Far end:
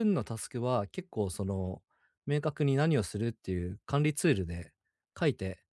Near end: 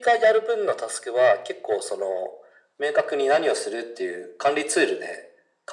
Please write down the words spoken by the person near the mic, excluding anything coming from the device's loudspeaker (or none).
none